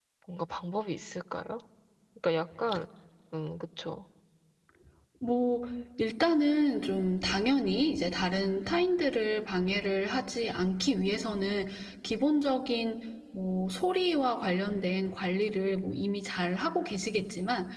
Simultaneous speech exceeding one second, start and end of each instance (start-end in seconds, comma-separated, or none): none